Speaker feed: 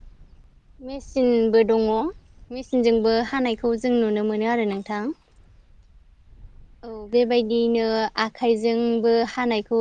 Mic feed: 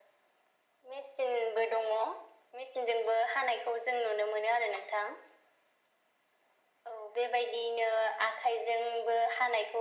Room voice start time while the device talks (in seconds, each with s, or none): none